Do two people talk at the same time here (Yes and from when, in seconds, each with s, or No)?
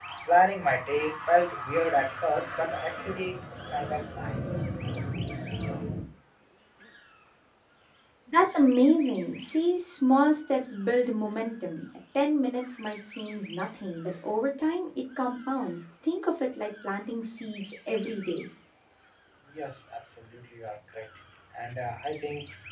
No